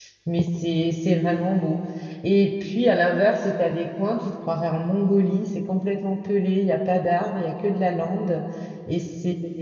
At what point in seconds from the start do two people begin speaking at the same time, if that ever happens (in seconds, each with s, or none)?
none